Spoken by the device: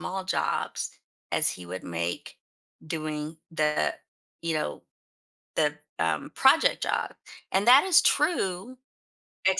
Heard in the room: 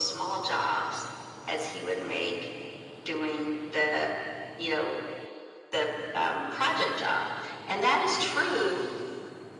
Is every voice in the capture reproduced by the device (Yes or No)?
Yes